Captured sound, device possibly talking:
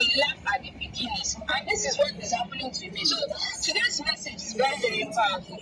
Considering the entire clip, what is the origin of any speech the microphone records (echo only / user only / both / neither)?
echo only